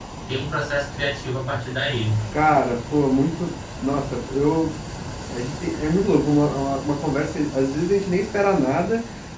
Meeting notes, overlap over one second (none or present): none